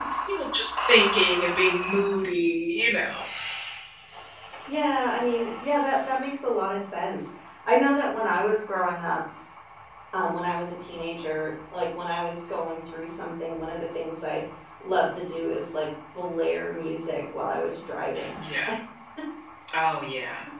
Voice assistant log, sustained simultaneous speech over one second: none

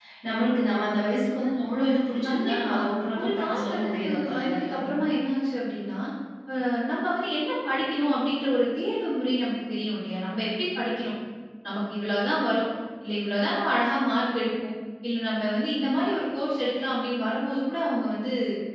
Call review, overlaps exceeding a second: present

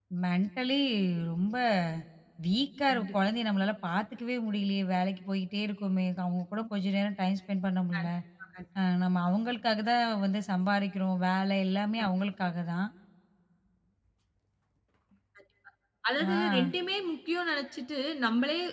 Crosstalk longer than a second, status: none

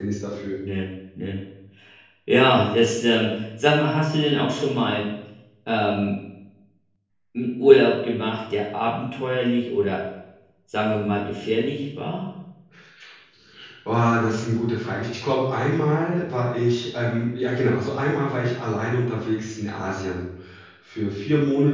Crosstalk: none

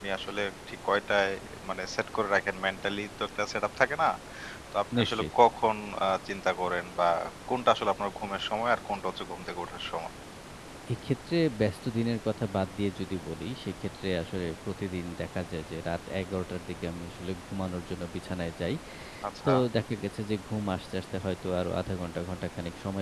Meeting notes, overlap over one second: none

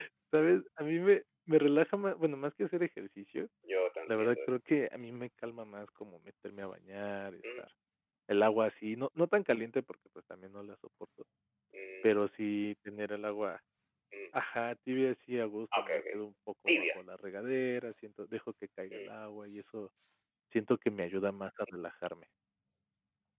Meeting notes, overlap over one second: none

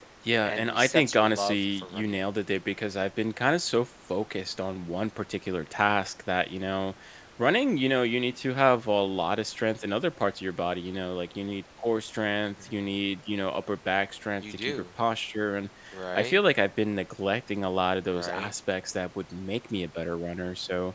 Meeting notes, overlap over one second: present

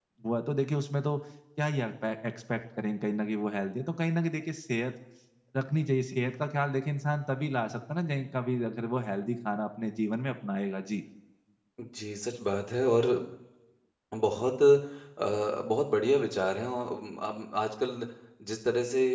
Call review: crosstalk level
none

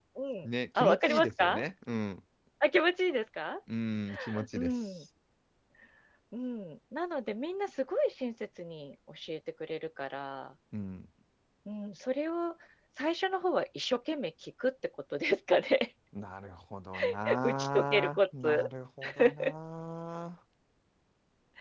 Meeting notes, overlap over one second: present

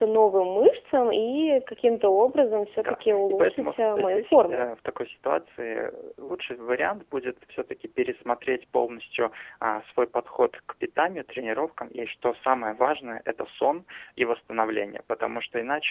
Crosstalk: present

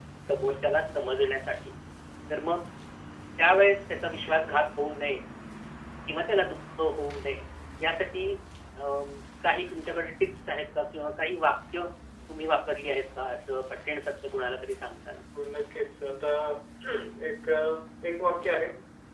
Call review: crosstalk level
none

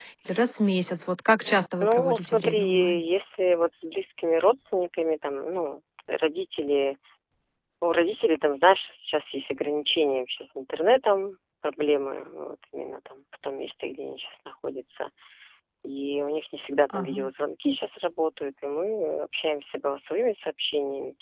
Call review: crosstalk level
present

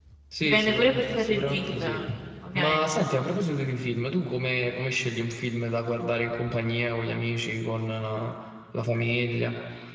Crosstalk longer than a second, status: present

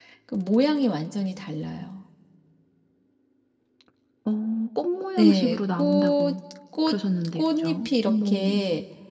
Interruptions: present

